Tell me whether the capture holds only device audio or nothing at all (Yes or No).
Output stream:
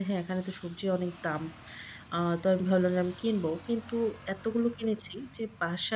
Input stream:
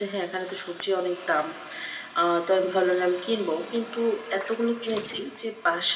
Yes